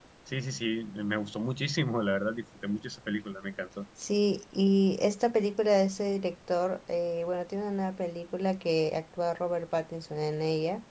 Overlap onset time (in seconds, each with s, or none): none